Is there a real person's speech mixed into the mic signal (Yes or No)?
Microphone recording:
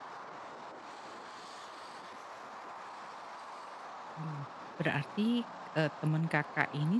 Yes